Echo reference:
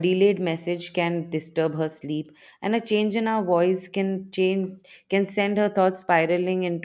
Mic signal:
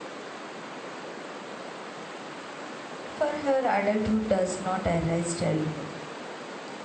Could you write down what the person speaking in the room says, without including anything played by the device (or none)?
For her, adulthood does not erase childhood.